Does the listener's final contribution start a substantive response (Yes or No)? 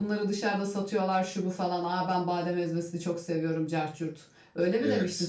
Yes